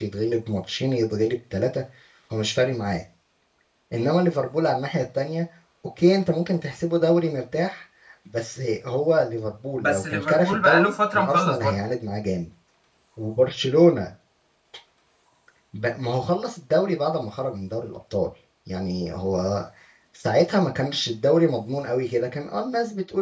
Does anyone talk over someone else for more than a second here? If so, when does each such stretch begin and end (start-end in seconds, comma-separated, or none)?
9.8-11.8